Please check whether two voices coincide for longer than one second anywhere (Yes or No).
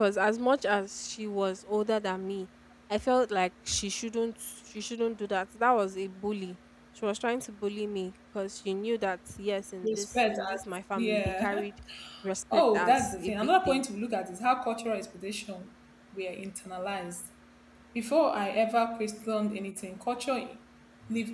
Yes